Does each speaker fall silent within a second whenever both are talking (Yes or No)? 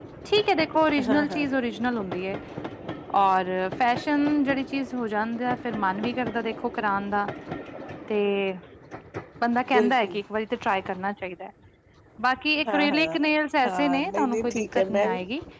No